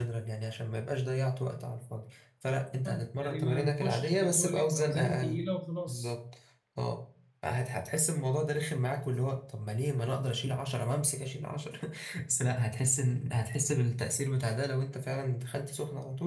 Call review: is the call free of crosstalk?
No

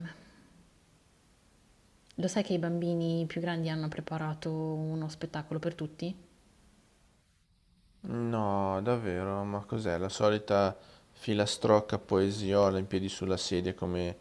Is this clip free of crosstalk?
Yes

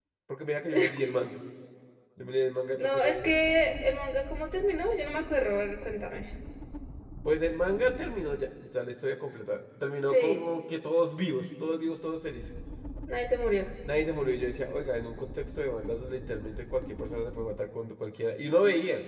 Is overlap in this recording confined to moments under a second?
Yes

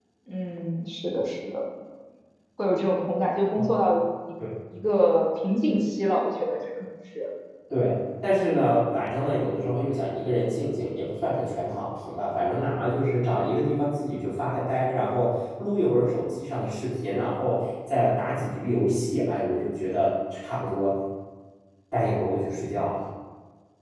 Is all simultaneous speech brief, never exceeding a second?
Yes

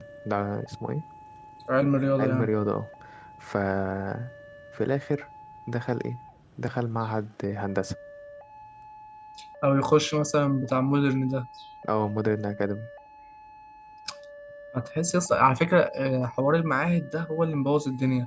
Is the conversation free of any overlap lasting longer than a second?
Yes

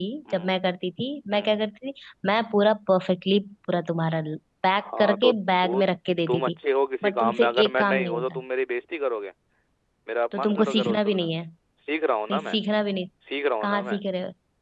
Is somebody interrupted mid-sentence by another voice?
Yes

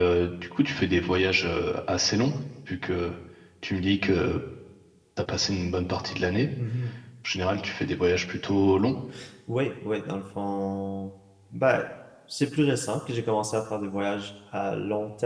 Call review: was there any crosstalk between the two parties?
No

